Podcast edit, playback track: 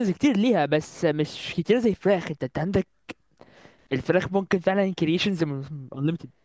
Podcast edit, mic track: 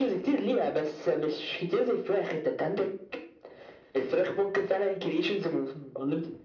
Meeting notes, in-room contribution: none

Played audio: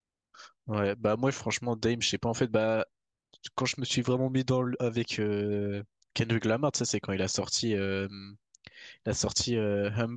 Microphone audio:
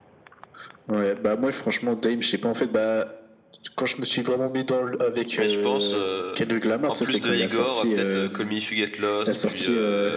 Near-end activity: present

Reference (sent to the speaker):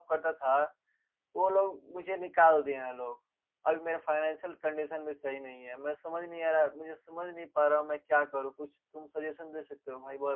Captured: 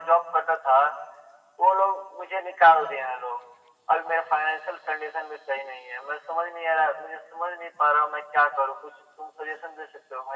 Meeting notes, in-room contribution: none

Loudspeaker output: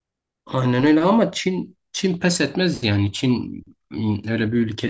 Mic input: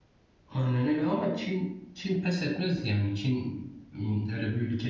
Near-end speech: none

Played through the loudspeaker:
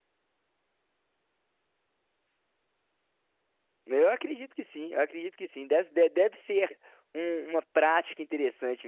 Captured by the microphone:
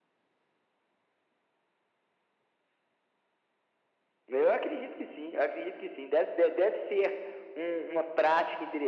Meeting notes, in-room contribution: none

